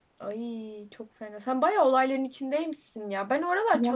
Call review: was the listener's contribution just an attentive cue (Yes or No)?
Yes